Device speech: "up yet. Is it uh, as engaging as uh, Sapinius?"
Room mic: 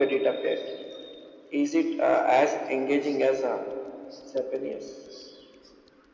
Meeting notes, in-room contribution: none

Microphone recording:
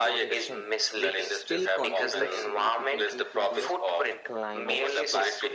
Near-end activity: present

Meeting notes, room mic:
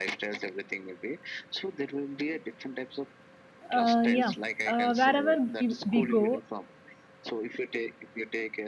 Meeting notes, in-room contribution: present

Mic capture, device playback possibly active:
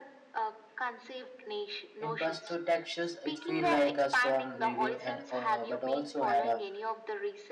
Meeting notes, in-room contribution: present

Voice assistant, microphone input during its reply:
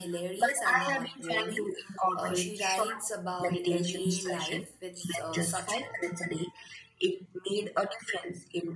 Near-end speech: present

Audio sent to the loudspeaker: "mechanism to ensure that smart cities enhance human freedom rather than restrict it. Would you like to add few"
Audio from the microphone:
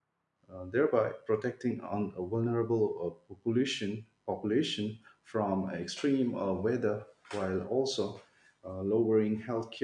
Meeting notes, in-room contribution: present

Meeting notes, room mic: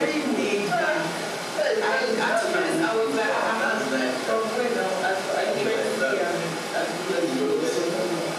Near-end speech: none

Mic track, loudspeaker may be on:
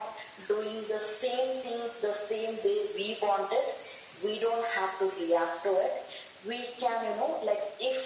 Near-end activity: none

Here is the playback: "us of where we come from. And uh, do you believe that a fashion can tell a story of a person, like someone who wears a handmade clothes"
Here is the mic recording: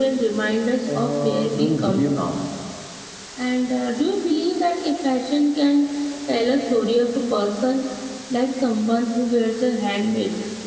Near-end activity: present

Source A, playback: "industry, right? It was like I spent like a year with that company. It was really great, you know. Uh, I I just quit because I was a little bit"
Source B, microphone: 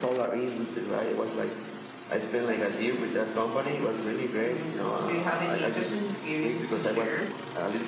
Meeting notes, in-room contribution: present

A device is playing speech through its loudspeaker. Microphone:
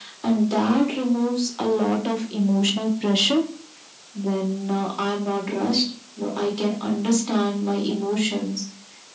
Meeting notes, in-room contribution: none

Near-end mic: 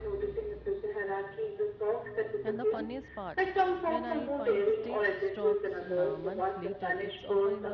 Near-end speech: present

